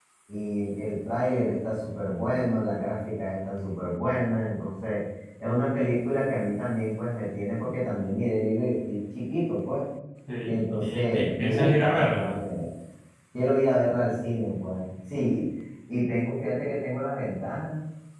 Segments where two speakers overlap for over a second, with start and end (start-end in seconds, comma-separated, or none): 10.4-12.4